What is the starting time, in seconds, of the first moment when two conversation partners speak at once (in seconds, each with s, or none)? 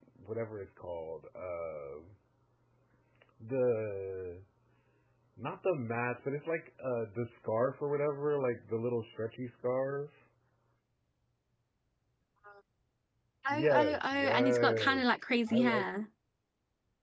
13.5 s